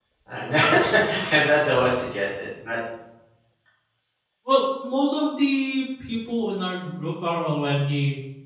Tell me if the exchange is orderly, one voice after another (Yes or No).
Yes